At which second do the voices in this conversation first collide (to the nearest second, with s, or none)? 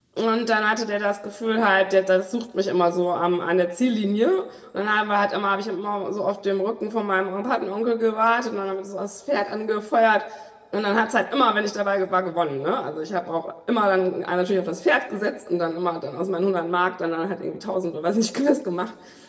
none